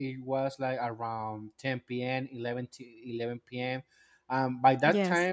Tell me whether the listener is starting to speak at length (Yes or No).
No